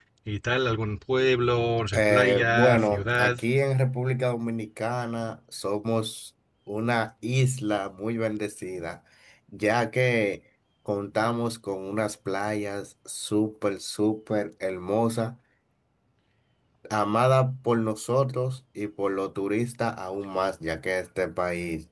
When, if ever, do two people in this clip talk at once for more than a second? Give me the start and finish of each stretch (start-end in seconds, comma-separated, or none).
1.9-3.3